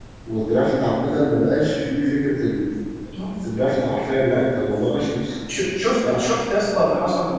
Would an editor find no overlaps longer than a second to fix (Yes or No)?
Yes